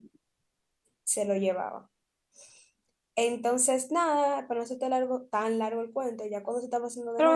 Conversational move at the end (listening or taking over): taking over